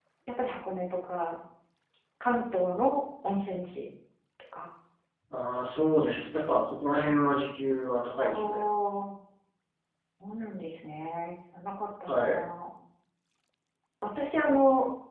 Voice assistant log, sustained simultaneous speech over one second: none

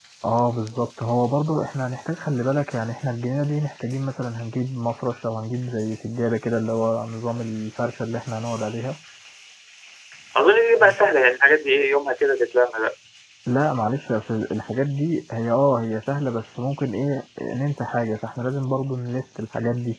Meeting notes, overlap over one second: none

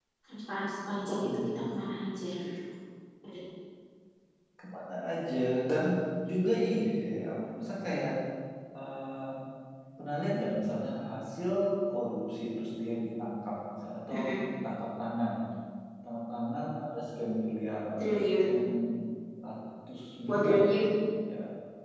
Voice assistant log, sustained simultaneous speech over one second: none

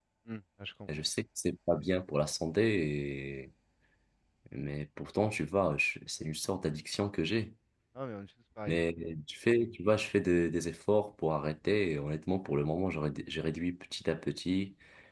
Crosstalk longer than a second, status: none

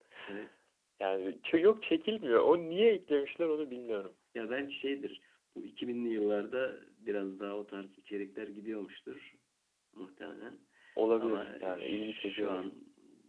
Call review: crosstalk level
present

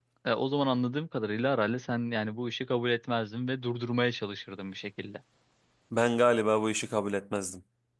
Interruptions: none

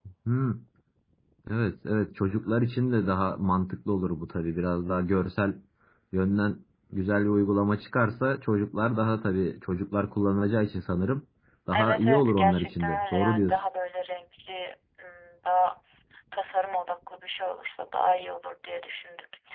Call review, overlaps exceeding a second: present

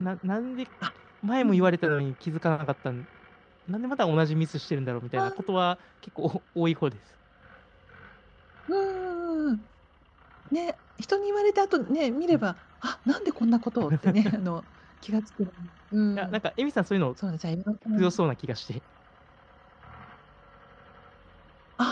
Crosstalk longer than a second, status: none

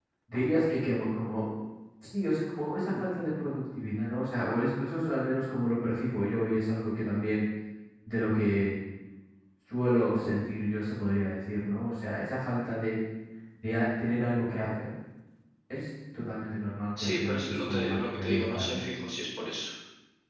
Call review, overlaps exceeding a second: present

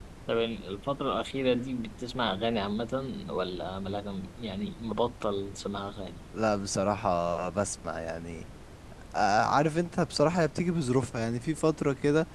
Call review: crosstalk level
none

